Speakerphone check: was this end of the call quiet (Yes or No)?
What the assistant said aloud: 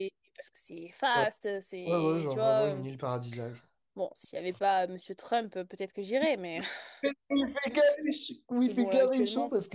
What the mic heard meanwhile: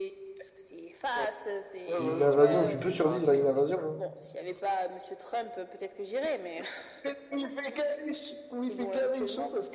No